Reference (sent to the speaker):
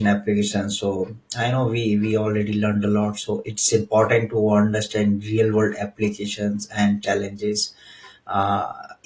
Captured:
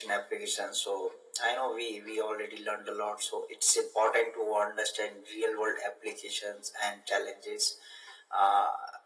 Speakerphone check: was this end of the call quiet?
Yes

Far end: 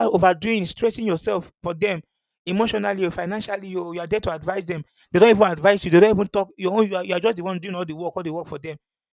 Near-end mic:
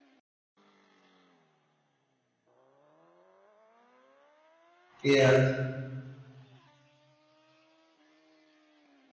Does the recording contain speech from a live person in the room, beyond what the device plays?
Yes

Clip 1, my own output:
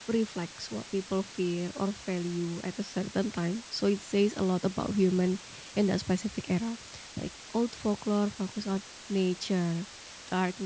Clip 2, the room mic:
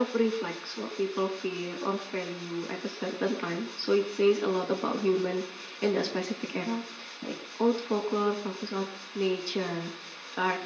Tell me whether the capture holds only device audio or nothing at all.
Yes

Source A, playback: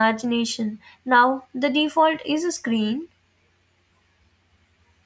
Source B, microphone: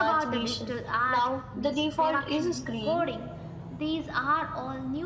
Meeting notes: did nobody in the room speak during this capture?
No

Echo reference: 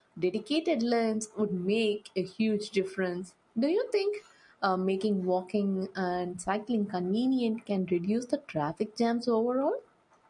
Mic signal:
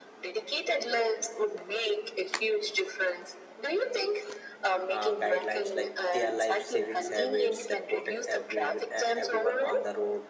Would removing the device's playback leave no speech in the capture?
No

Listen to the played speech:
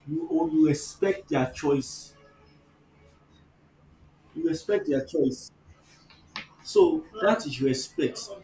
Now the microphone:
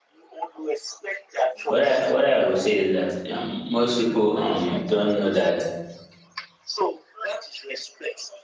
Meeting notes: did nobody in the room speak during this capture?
No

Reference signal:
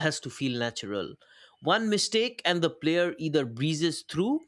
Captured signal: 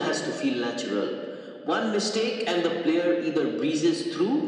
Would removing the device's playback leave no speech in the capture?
Yes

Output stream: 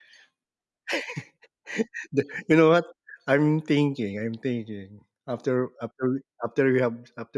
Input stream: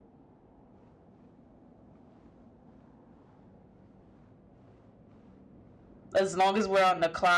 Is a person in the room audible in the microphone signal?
Yes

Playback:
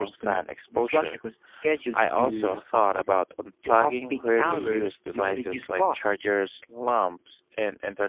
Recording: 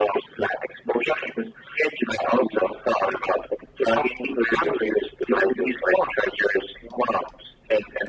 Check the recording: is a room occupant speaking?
No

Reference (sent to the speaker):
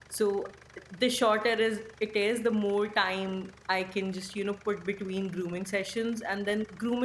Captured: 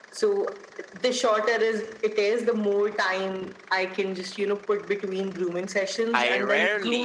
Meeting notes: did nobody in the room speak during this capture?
No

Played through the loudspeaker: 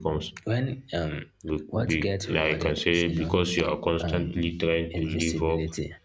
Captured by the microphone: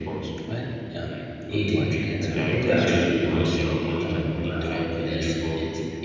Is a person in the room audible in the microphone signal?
Yes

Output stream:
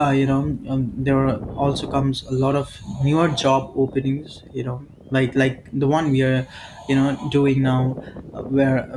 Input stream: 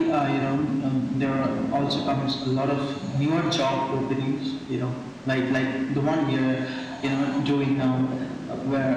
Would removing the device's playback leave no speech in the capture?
Yes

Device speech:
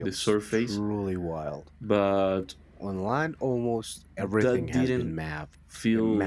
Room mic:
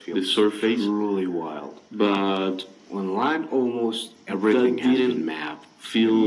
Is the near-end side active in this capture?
No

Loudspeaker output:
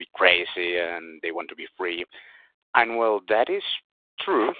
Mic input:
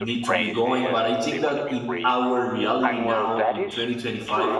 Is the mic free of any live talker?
No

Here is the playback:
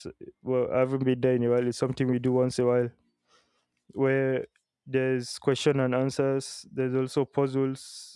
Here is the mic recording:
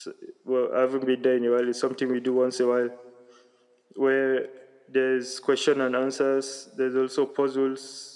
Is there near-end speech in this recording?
No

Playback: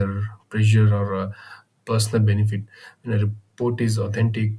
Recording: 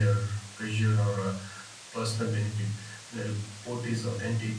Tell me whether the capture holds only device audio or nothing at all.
Yes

